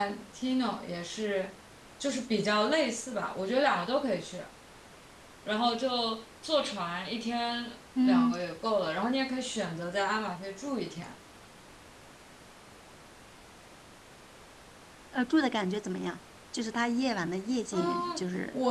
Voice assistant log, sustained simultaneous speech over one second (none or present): none